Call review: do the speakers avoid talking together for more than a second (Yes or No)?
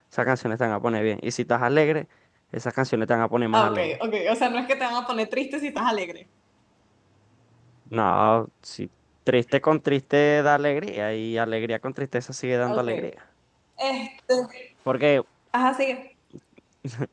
Yes